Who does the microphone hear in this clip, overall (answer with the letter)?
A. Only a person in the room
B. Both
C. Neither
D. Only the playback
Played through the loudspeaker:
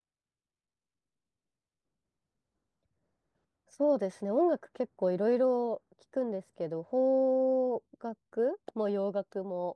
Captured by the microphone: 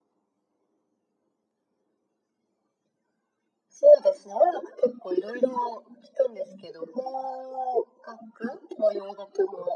D